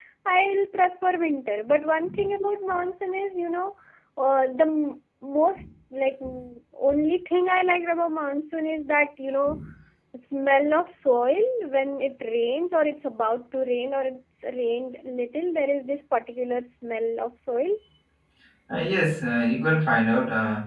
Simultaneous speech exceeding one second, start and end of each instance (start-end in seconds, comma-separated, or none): none